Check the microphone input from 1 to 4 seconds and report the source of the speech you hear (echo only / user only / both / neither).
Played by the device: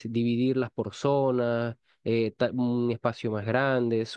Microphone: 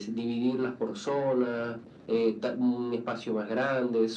echo only